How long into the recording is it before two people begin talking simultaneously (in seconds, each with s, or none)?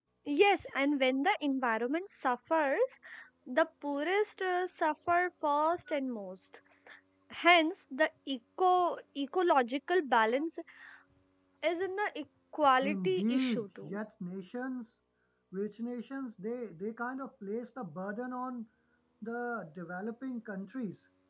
12.8 s